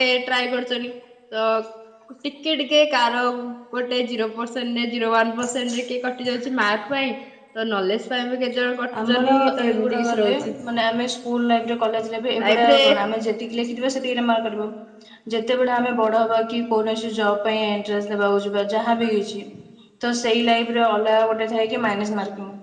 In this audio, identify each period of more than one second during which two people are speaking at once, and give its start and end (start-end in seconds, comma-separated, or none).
9.0-10.3